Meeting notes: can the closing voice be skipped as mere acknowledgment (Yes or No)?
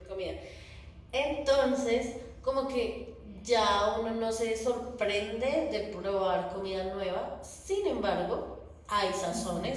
Yes